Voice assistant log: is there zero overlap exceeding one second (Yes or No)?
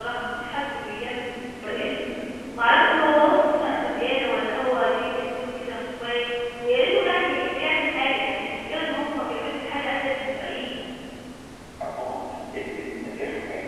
No